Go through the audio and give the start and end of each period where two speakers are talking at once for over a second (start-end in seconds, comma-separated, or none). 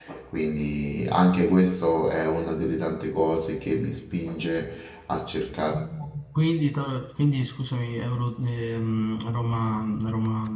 none